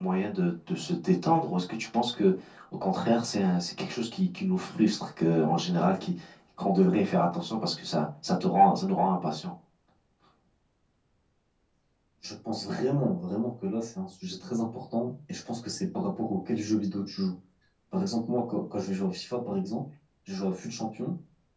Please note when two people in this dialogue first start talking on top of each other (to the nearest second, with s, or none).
none